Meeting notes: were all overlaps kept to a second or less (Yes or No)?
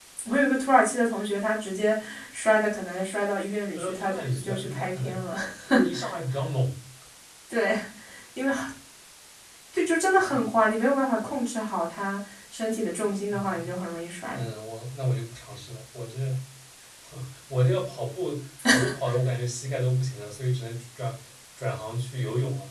No